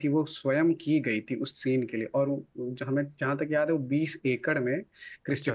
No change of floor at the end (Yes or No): Yes